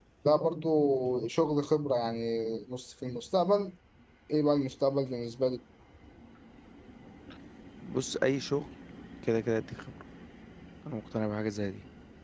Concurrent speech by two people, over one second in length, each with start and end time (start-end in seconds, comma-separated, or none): none